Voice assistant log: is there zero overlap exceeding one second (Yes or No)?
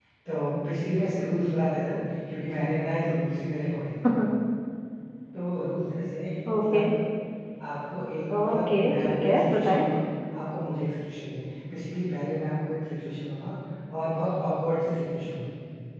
No